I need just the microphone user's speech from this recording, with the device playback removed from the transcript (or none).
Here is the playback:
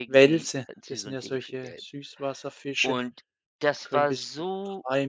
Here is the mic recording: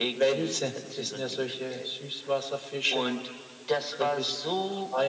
none